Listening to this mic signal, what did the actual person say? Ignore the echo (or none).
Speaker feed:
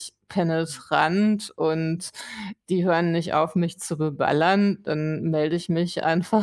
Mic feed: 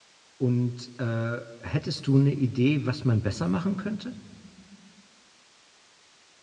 Und äh, hättest du eine Idee, was man besser machen könnte?